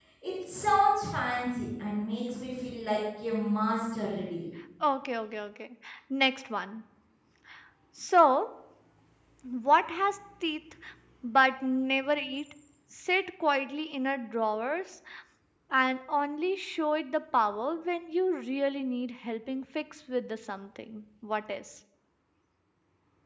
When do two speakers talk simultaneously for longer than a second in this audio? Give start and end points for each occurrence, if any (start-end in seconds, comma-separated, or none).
none